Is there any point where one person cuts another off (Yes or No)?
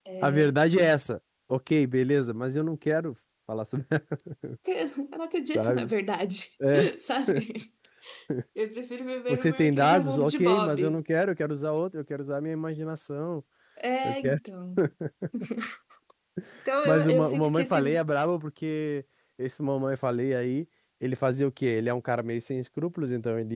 Yes